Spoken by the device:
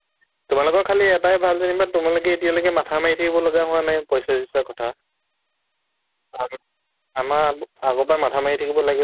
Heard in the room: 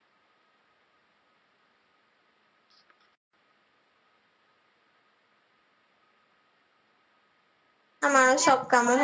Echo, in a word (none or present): none